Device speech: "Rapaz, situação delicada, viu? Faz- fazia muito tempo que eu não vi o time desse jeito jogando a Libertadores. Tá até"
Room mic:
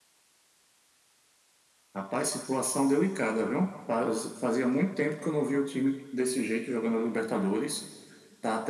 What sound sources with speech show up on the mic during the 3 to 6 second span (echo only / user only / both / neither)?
echo only